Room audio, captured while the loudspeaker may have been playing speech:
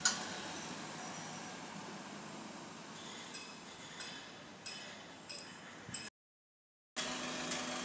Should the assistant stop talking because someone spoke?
No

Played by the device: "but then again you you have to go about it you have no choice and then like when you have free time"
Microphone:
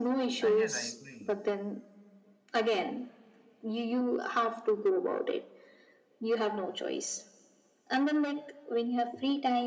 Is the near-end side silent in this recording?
No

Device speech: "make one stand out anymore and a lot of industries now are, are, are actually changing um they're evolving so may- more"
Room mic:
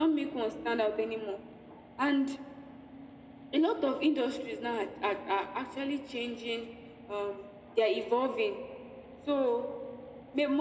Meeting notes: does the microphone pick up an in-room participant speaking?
No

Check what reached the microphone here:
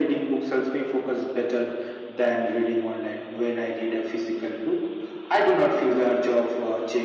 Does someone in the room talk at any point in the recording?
No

